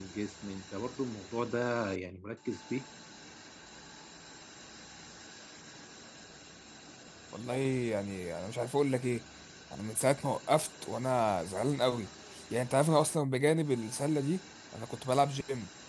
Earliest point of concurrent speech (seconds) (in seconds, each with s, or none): none